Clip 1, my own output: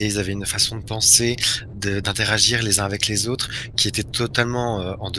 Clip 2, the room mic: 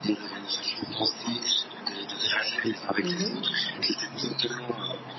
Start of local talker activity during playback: 3.0 s

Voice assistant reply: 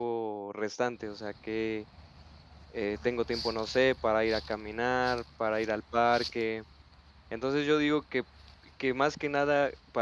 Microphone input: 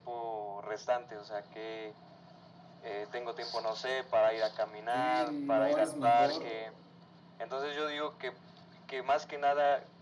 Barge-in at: 4.9 s

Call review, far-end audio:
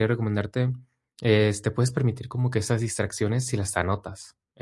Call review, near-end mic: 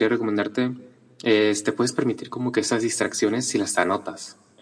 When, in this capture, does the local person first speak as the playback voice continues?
none

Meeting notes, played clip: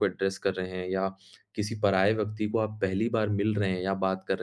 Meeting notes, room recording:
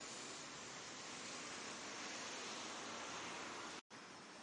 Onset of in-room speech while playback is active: none

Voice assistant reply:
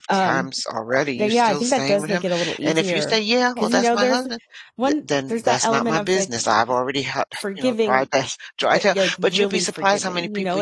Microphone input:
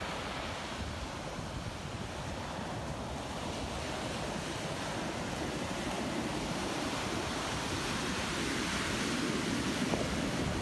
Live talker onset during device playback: none

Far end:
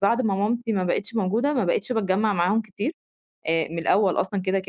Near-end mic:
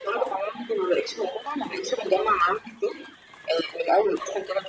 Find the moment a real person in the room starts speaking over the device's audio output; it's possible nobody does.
none

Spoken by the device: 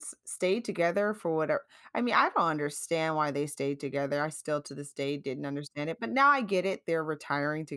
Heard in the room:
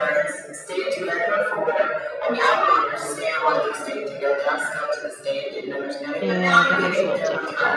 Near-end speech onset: 6.2 s

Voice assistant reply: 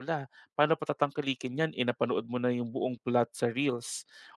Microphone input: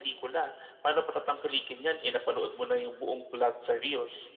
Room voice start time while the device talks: none

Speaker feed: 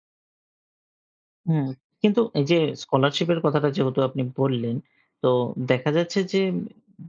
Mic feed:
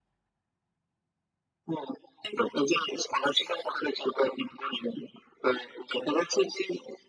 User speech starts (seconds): none

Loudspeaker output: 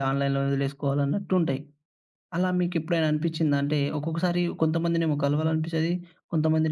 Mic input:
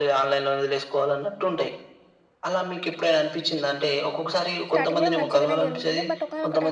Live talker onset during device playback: 4.7 s

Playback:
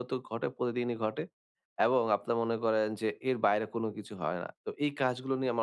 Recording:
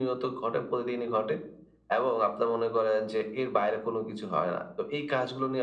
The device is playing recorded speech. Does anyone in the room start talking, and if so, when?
none

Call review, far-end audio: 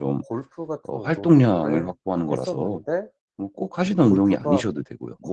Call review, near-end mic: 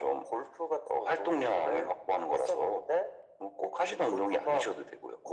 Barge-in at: none

